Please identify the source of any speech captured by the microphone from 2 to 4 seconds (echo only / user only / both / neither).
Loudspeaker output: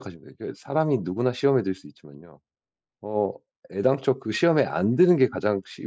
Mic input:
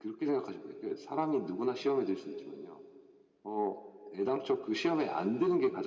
echo only